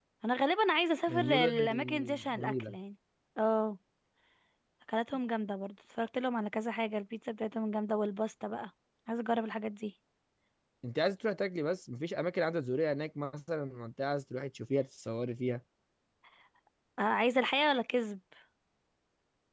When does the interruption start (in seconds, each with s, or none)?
1.1 s